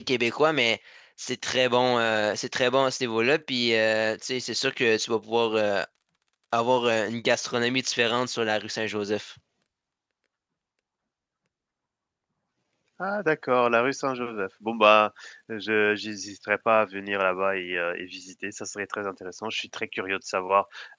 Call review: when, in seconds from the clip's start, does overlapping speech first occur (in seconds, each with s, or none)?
none